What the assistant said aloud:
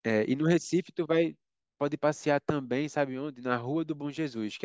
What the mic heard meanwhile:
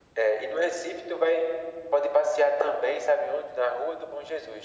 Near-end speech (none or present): none